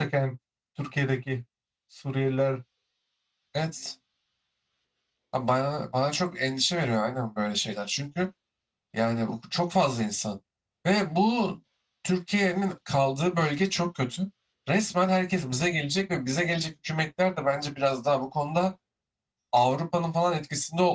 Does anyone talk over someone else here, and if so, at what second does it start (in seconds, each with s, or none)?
none